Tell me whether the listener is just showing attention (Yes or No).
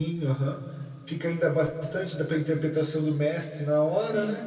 No